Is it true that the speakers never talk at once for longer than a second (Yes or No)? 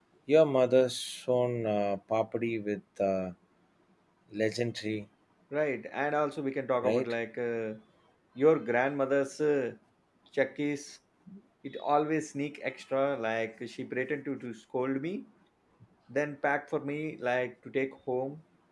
Yes